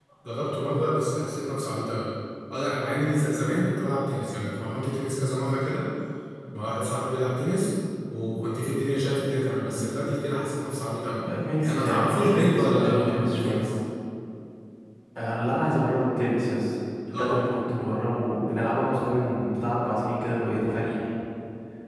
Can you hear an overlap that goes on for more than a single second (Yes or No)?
Yes